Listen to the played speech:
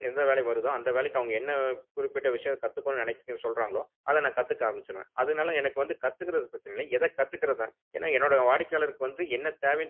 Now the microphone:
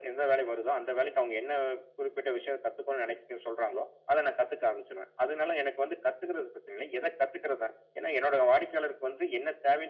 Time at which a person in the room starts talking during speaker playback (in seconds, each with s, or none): none